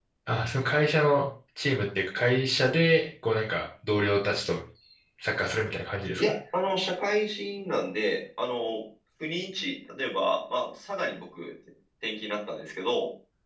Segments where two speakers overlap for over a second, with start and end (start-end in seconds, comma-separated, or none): none